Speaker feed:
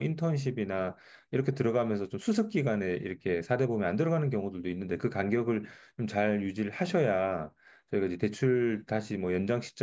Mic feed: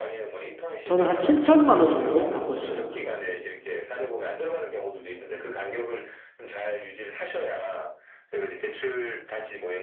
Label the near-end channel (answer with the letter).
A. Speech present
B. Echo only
A